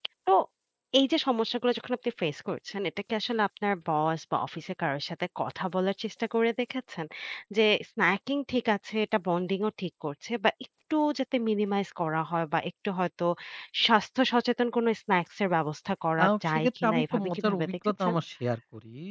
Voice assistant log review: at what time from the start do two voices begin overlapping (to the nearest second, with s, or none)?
16 s